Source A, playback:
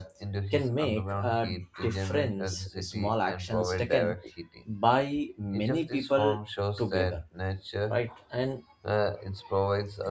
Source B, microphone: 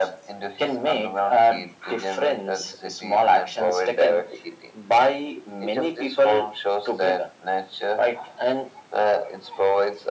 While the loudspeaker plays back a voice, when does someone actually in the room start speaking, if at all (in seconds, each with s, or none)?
none